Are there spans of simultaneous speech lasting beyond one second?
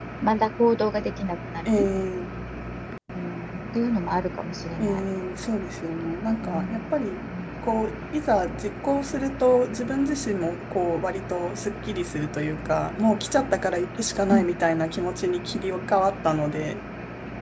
No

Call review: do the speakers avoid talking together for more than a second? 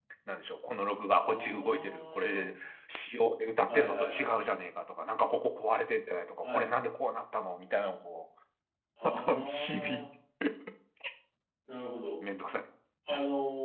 No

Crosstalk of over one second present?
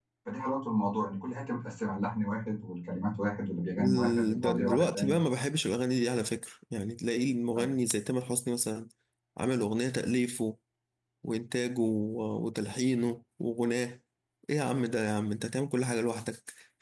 Yes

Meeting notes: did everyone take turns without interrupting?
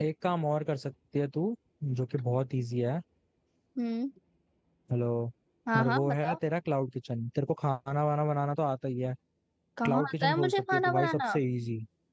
No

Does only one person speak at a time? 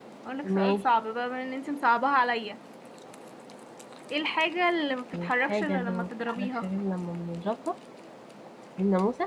No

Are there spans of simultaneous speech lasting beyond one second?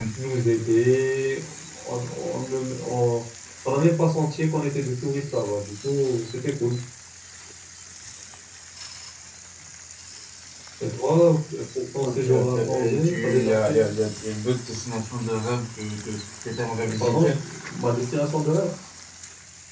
Yes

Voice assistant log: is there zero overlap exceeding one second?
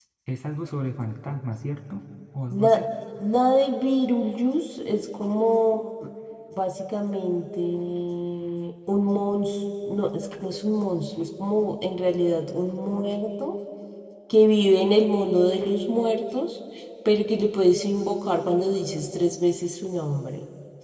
Yes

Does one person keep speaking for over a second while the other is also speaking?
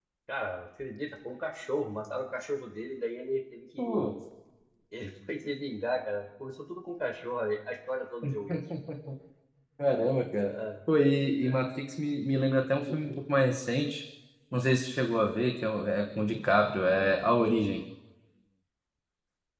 No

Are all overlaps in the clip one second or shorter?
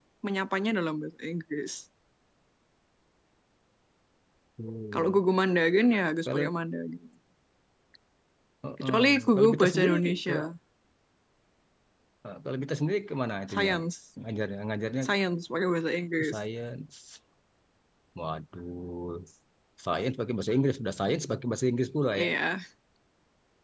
No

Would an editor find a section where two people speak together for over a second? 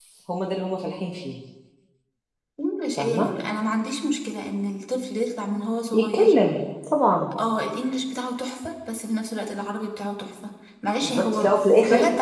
Yes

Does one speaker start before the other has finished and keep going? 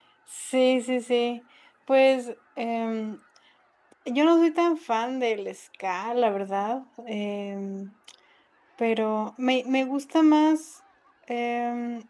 No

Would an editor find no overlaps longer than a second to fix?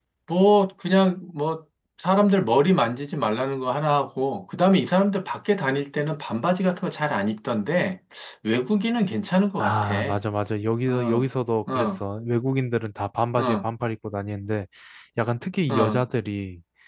Yes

